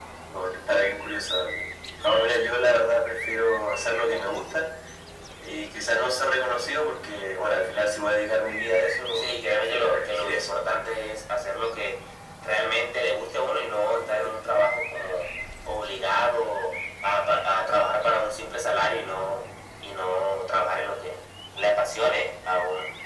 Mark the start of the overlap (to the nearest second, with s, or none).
9 s